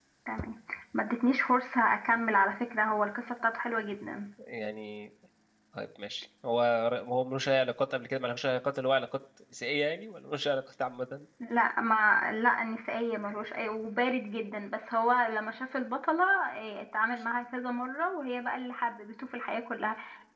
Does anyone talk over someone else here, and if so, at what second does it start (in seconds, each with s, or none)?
none